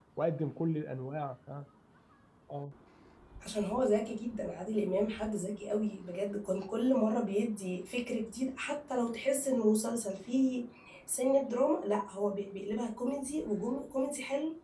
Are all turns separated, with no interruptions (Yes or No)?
Yes